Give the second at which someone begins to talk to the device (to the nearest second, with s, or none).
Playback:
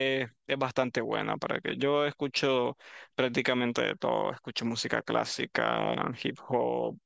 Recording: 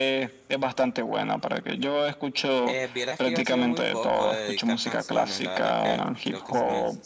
3 s